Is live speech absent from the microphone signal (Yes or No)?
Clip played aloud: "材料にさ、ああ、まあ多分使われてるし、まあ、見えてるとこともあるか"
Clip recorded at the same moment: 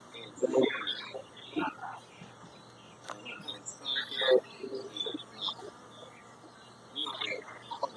Yes